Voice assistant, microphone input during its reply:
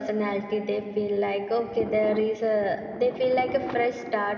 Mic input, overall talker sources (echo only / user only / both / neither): echo only